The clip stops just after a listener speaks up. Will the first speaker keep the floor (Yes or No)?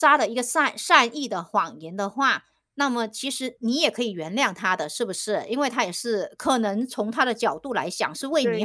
No